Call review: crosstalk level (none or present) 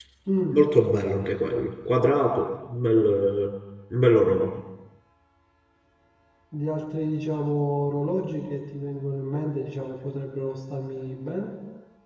none